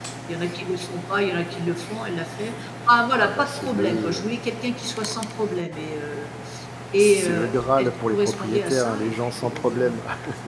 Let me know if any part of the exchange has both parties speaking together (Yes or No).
Yes